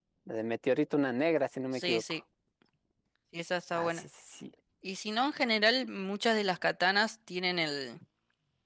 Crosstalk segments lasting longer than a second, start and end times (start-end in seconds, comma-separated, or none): none